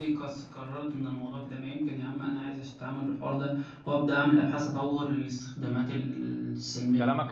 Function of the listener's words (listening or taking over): taking over